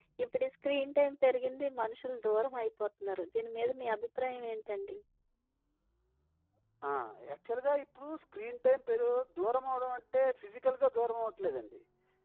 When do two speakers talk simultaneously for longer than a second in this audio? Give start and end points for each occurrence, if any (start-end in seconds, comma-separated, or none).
none